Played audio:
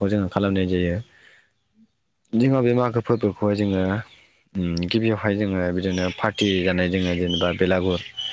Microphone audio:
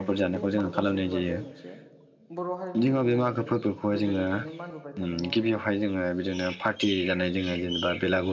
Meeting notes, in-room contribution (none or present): present